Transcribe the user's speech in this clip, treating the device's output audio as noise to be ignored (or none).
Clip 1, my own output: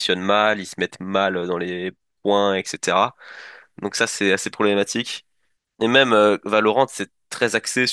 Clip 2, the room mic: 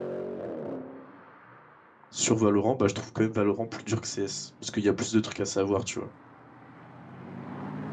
sur Valorant, bah je trouve quand même Valorant plus dur que CS. Parce qu'il y a plus de trucs à savoir, tu vois.